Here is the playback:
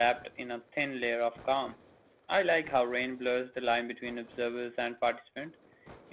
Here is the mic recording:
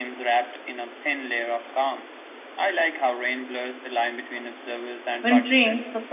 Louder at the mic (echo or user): user